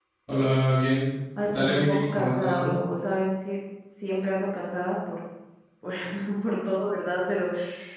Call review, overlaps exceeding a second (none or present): present